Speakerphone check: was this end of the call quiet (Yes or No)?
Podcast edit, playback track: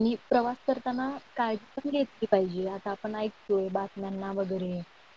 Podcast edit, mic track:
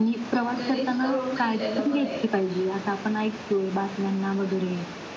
No